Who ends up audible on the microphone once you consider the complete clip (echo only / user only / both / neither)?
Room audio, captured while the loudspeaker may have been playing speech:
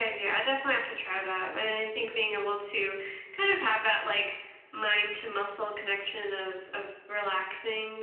echo only